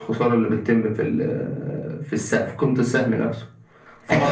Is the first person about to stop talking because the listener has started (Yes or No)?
Yes